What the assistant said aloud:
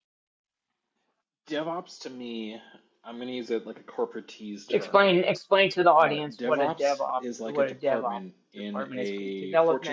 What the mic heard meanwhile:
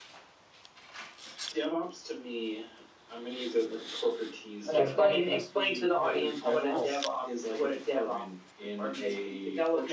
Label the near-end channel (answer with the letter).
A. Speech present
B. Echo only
A